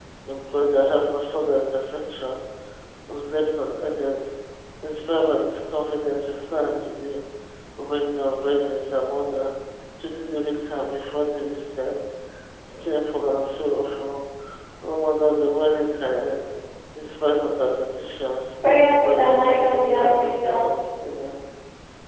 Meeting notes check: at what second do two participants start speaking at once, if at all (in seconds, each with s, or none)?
19.0 s